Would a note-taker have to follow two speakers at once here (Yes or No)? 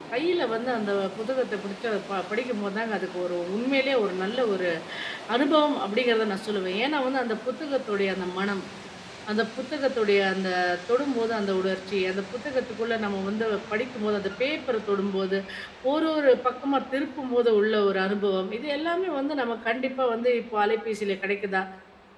No